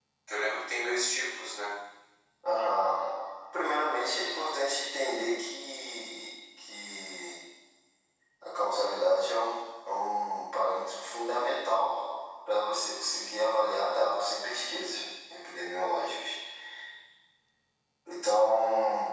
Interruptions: none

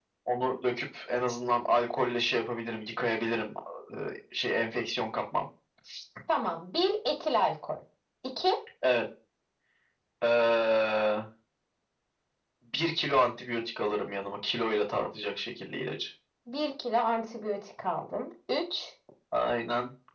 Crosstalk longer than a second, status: none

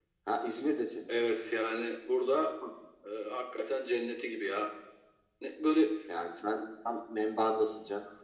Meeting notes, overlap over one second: none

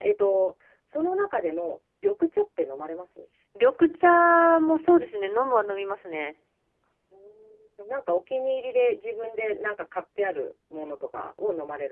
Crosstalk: none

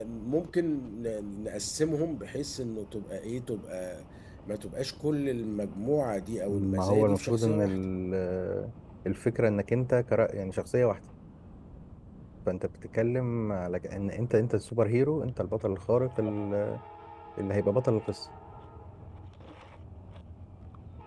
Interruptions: present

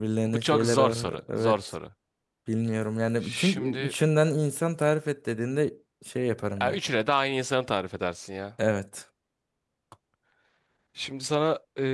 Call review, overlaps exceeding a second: present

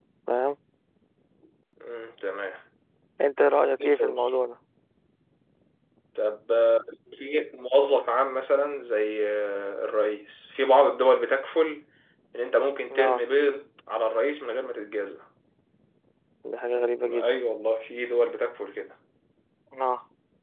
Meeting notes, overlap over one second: none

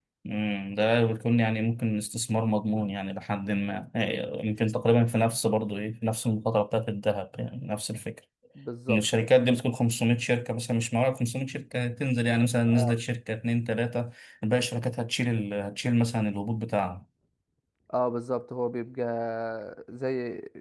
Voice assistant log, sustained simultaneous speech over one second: none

